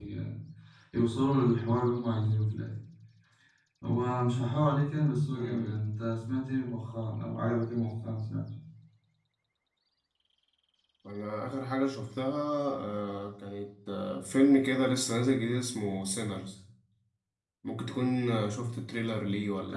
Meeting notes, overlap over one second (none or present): none